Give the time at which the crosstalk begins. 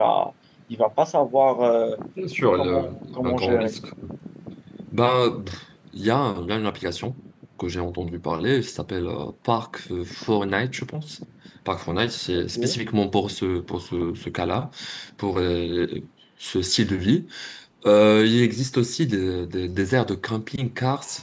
3 s

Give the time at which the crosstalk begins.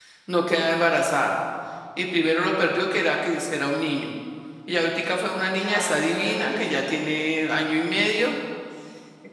6 s

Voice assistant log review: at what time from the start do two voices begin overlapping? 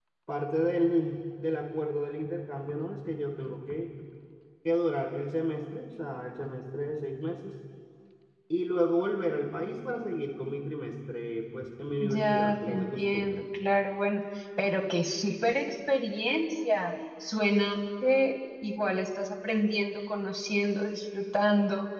12 s

